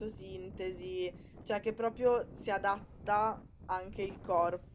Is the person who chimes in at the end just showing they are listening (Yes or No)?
Yes